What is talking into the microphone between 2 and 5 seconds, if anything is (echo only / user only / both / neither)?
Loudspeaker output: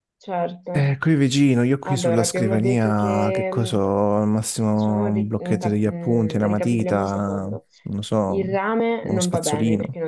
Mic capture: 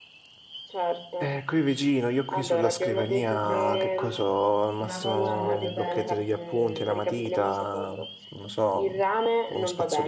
both